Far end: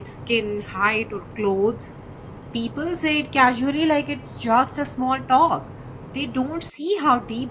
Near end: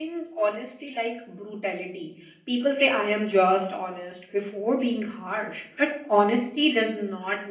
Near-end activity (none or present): present